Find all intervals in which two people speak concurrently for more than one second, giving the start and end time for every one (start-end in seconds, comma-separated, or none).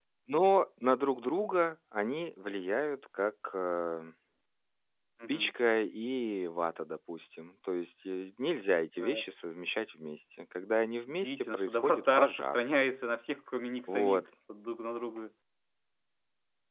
11.2-12.6